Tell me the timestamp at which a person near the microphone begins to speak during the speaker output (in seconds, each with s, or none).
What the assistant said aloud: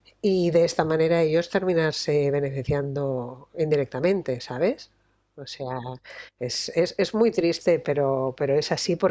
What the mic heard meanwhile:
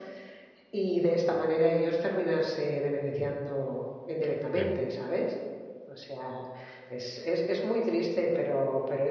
4.5 s